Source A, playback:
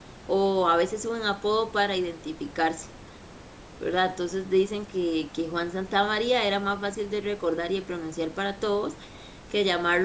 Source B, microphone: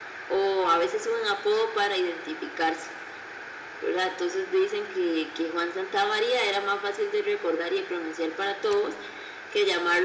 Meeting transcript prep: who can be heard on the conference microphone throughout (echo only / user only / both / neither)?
echo only